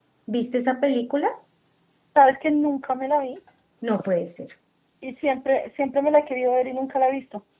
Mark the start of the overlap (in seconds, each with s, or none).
none